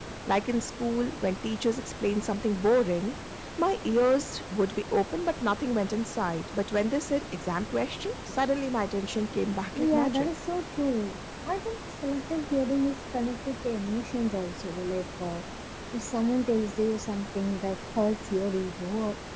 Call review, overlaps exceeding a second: none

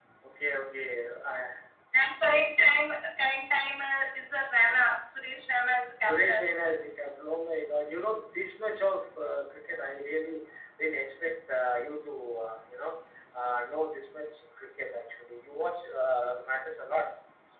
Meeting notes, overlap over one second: none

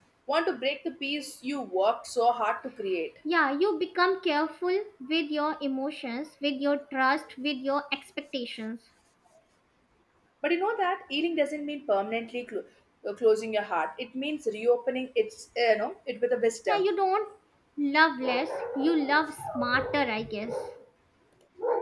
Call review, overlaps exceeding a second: none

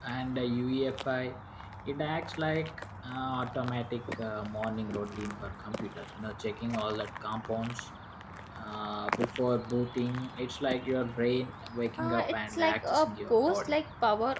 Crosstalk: present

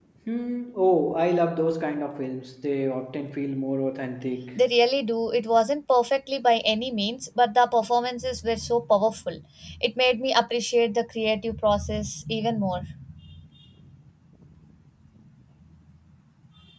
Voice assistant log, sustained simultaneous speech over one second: none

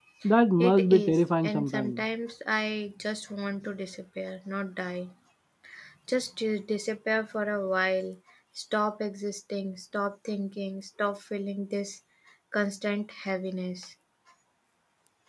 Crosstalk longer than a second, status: present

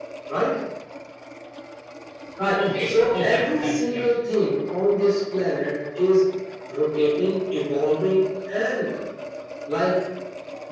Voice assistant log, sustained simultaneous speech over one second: present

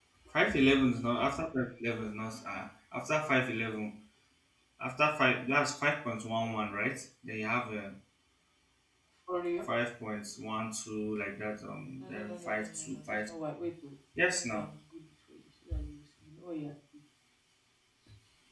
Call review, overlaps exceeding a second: present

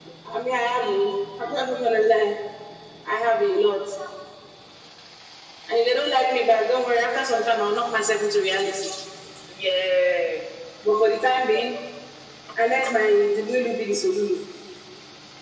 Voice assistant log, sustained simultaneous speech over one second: none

